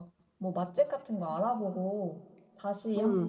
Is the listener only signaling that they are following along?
No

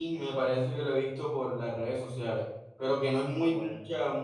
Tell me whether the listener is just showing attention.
Yes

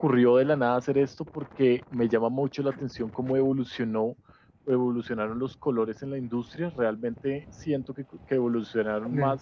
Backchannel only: Yes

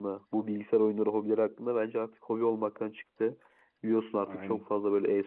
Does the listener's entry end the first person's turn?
No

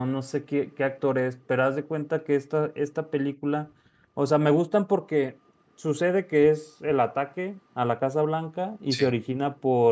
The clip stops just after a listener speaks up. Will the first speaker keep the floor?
Yes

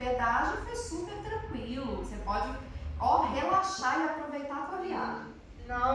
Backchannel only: No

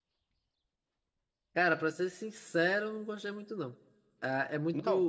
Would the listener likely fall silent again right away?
Yes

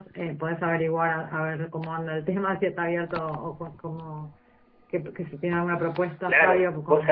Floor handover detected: Yes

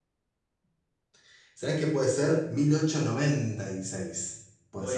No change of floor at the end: No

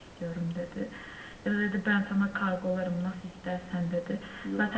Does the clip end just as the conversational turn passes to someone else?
No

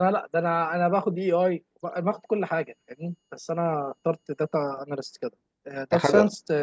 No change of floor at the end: Yes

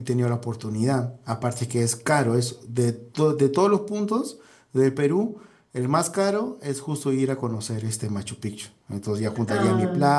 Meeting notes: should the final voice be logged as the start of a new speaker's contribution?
No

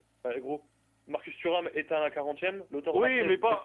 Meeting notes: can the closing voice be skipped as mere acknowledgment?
No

